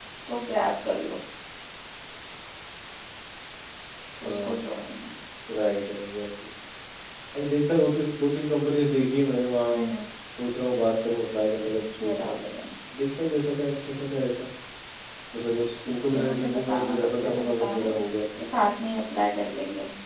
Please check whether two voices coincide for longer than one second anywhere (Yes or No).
Yes